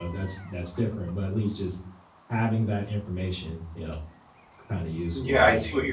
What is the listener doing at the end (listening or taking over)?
taking over